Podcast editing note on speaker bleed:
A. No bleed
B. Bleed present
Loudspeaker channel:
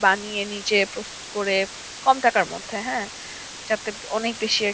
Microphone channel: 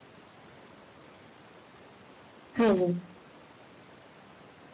A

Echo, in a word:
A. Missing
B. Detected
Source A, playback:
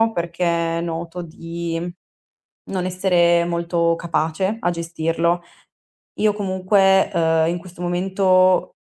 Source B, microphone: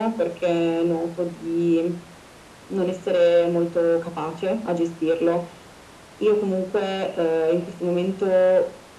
B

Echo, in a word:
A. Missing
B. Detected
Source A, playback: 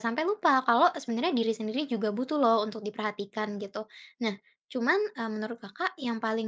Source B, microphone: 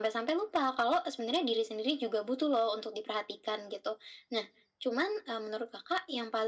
B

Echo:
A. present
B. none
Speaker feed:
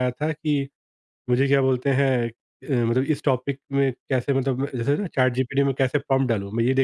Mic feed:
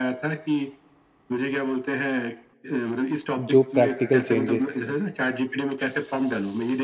A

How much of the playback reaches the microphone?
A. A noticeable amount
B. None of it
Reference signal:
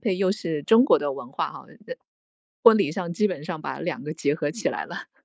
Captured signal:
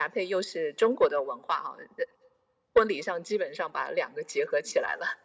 A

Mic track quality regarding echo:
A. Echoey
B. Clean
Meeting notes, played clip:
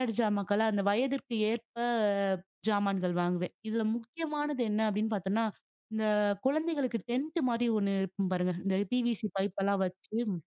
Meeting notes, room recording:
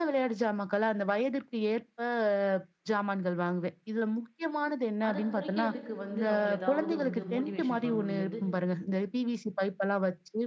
A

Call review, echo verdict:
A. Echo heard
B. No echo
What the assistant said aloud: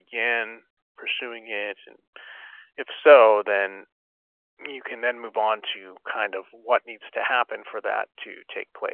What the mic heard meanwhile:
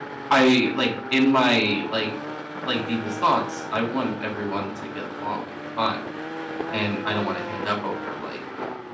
B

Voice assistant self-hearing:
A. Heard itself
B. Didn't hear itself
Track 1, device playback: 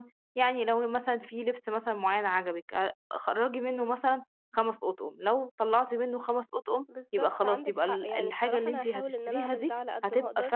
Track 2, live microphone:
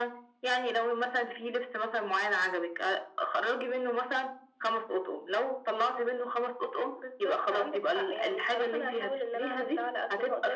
A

